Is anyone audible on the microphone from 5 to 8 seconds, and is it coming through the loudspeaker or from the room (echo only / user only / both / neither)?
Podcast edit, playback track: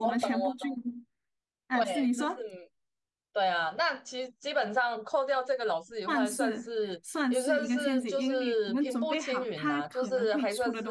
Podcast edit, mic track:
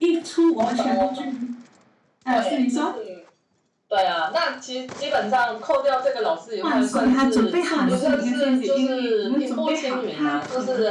both